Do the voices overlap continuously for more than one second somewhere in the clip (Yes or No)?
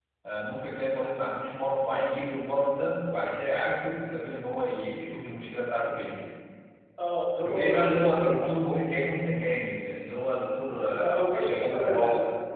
Yes